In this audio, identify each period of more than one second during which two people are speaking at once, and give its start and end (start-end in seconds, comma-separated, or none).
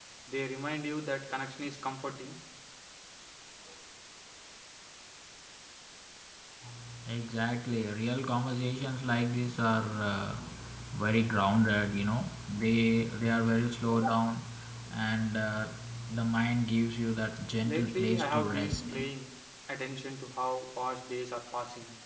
17.6-19.0